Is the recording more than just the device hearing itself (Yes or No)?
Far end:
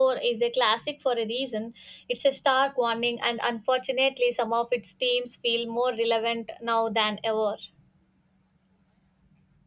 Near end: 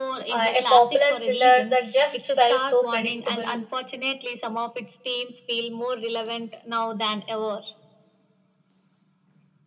Yes